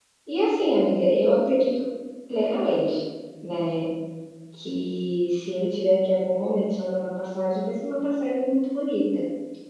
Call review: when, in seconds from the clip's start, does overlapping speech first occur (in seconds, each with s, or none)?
none